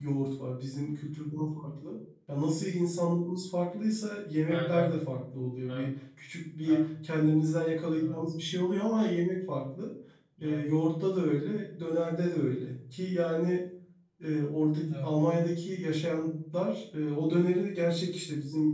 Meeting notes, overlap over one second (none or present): none